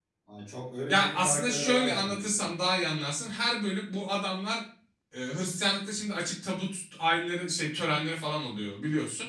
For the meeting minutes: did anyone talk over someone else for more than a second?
Yes, from 0.9 s

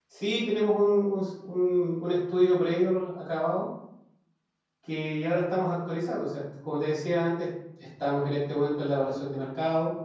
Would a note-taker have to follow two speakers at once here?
No

